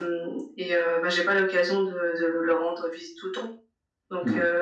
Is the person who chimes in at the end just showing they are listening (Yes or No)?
Yes